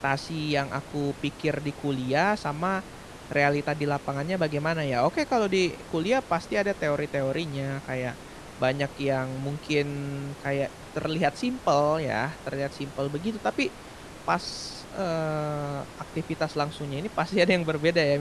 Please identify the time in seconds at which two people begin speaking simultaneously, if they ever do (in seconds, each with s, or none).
none